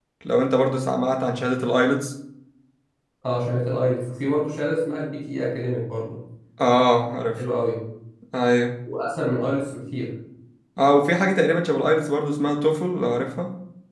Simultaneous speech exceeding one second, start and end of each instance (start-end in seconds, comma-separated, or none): none